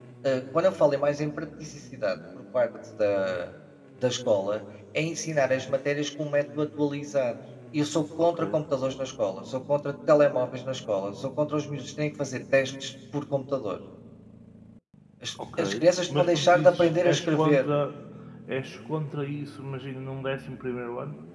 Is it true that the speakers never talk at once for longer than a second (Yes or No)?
No